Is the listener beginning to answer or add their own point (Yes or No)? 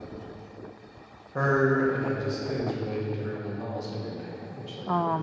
Yes